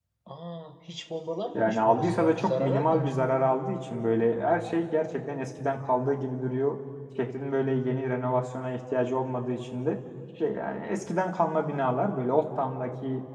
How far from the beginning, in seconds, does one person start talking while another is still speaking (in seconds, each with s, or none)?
1.5 s